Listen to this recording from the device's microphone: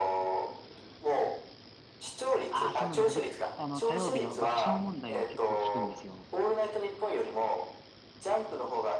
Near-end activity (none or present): present